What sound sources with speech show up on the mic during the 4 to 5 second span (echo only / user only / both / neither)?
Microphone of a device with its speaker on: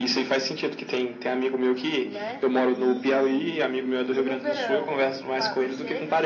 both